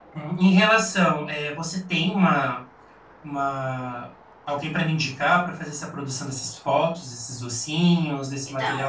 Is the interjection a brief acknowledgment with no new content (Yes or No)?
No